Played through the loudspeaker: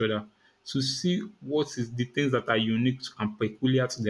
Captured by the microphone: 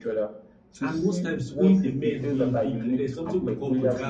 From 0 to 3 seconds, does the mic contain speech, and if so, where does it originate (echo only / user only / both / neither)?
both